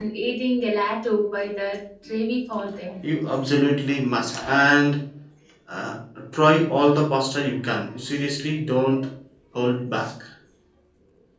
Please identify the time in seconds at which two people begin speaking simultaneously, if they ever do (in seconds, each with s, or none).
none